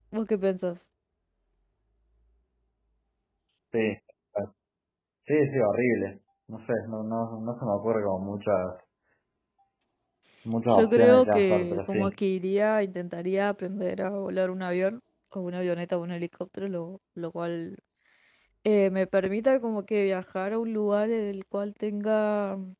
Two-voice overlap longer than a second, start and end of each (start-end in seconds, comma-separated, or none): 10.7-12.1